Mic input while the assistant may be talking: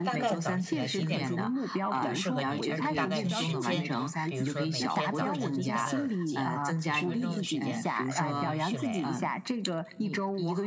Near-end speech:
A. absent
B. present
B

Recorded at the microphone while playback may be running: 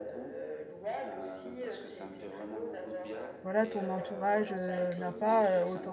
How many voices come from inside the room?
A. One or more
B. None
A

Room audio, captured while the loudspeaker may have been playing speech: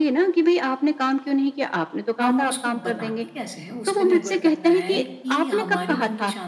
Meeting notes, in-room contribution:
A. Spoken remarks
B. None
A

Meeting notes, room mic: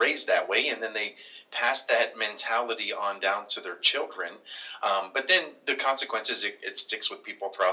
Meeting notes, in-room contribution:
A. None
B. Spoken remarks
A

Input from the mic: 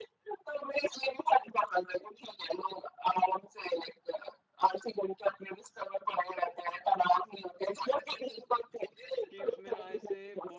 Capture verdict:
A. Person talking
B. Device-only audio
A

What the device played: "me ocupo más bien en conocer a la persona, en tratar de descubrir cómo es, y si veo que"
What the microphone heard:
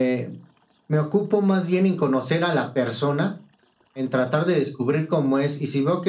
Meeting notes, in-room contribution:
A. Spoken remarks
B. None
B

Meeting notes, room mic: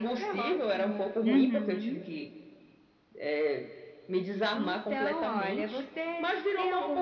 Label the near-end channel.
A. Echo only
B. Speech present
B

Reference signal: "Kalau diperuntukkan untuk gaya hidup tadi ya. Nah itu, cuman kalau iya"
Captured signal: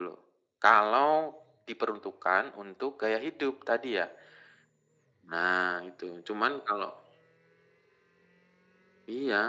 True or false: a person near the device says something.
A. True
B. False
B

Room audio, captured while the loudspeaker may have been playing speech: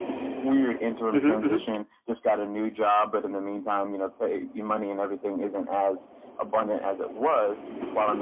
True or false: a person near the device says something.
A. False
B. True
B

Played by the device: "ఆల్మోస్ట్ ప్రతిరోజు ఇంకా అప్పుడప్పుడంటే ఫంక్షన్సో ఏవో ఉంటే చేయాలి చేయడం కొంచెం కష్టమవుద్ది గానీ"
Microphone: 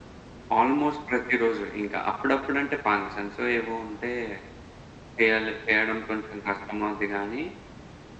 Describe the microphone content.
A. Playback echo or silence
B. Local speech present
A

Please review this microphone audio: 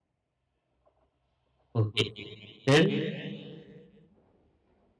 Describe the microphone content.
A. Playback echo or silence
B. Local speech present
B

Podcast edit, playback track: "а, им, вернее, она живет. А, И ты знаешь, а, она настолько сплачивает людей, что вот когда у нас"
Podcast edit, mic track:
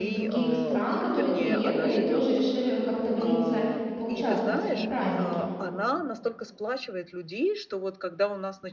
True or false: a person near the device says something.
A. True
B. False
A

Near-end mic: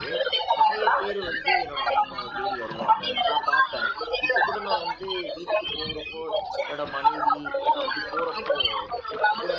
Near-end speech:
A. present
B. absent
A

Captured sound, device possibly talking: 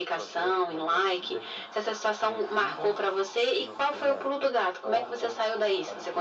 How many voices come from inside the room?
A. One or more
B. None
A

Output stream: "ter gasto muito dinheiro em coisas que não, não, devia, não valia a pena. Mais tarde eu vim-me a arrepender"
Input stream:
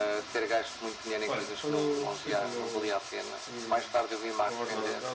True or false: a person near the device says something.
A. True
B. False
A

